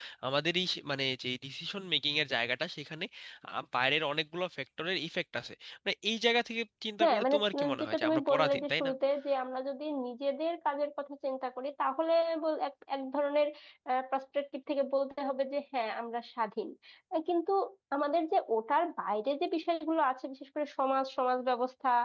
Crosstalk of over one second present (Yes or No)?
Yes